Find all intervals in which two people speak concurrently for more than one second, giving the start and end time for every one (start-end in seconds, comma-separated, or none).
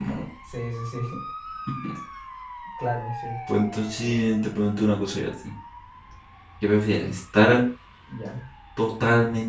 none